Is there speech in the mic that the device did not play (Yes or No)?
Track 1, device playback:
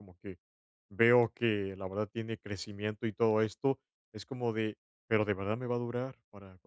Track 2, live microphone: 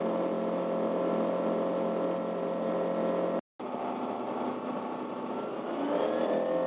No